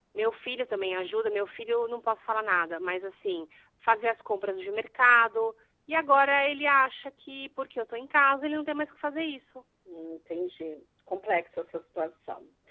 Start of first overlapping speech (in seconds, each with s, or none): none